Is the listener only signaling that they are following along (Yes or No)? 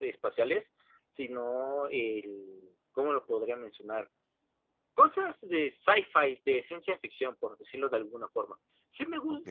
Yes